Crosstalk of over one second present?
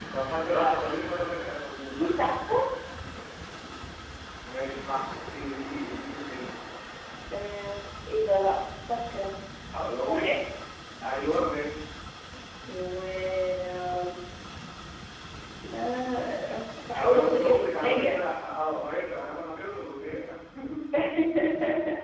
Yes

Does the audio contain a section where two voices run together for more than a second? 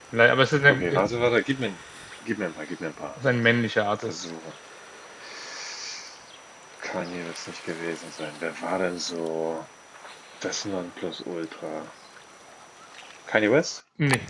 No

